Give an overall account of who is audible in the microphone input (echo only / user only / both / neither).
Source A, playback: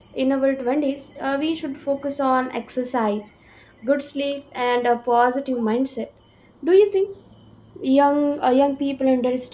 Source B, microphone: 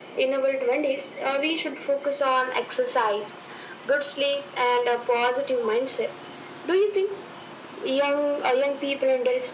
echo only